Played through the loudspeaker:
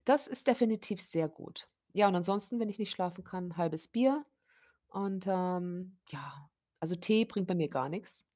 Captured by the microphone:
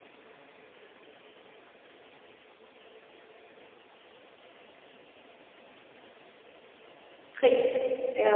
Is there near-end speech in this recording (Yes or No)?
Yes